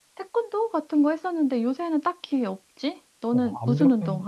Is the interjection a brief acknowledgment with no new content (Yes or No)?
No